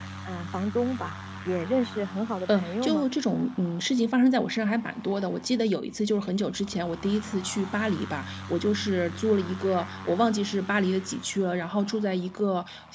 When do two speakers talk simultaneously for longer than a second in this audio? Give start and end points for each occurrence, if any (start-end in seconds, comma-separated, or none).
none